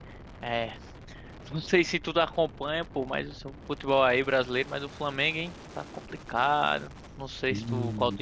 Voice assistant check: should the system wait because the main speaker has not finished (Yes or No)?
Yes